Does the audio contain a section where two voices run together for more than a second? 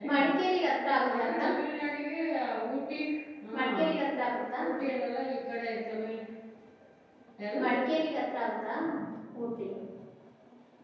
No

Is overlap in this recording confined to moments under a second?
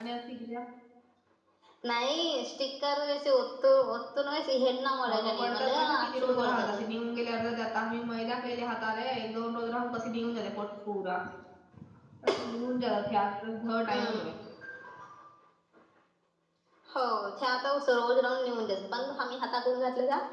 No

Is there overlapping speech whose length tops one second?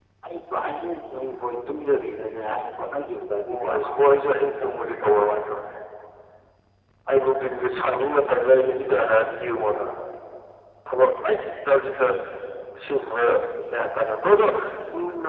No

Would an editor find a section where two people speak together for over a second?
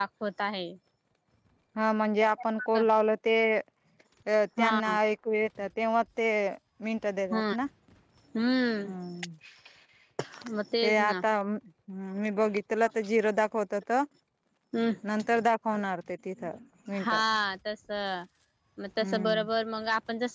No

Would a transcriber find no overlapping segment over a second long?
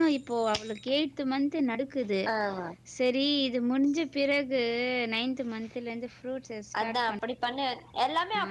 Yes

